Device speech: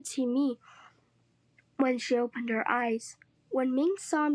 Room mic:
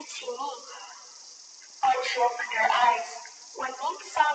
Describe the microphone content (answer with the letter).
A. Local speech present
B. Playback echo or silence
B